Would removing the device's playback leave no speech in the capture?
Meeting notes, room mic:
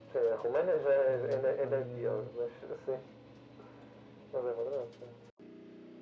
No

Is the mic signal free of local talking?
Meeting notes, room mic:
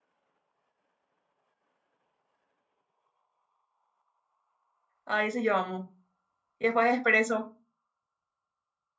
No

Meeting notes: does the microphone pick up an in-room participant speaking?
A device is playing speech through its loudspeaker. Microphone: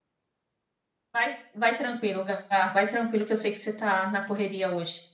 Yes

